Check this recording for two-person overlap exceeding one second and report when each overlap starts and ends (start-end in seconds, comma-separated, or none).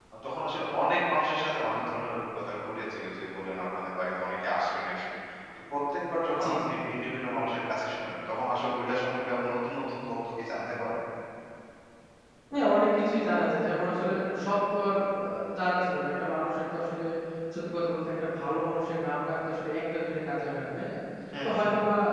none